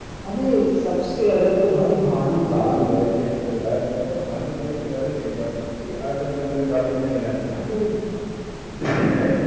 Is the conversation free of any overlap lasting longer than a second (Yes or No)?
Yes